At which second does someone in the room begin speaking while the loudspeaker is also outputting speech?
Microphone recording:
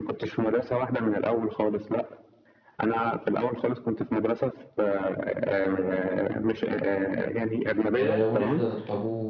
8.0 s

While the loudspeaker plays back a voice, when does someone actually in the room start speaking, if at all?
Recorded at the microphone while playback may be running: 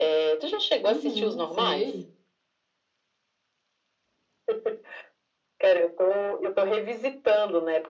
0.9 s

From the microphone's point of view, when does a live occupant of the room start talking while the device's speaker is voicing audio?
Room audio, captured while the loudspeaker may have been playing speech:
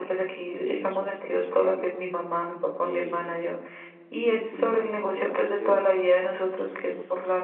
0.5 s

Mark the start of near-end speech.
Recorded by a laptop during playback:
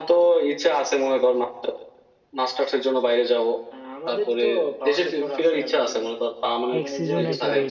6.8 s

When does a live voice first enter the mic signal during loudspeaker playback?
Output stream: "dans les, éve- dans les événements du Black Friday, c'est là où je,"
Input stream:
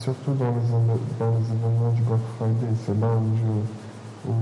none

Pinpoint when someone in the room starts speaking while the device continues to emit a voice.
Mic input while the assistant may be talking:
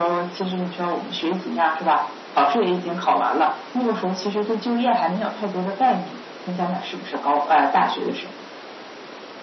none

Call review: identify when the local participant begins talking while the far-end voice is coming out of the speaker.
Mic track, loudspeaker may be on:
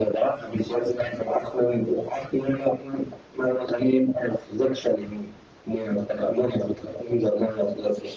none

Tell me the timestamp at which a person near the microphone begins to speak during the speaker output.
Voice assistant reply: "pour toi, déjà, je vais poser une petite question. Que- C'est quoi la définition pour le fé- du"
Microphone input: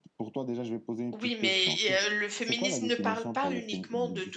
1.1 s

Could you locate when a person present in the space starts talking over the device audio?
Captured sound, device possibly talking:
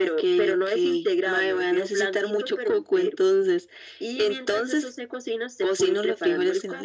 none

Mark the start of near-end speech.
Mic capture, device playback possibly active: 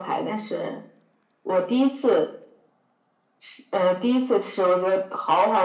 none

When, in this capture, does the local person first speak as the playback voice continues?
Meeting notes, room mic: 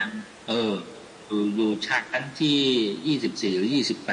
none

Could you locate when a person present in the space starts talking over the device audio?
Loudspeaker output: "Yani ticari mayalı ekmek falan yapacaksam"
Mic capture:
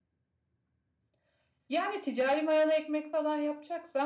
none

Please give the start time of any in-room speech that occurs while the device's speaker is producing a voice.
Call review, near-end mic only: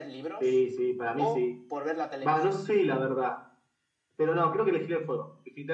none

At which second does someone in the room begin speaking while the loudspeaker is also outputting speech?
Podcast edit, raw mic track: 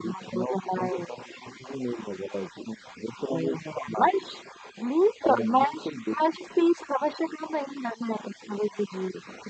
none

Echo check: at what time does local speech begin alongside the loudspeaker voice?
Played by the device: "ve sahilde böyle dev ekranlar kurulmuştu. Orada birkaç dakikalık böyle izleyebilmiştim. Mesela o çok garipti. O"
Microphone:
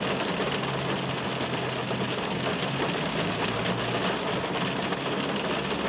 none

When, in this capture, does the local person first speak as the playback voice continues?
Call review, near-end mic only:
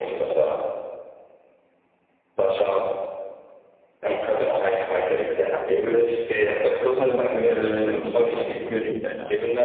6.9 s

